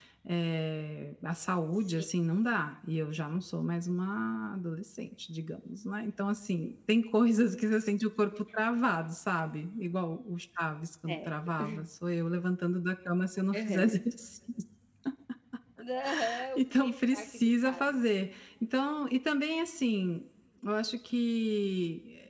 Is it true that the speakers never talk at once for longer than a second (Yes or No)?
No